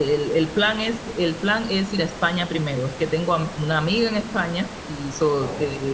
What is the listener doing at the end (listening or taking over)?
listening